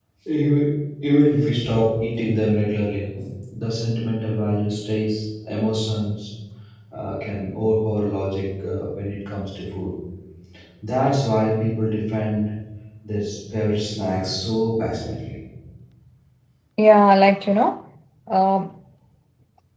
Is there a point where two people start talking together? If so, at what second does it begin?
none

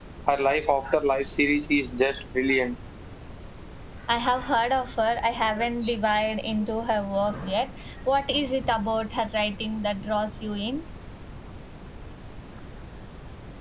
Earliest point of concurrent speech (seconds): none

